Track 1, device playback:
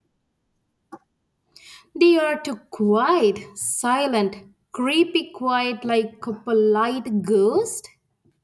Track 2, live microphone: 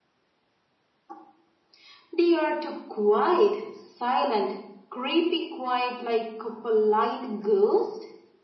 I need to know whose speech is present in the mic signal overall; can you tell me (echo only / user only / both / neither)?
echo only